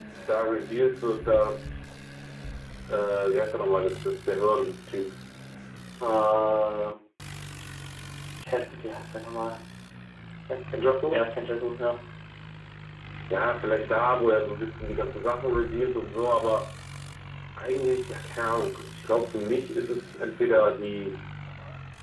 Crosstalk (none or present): none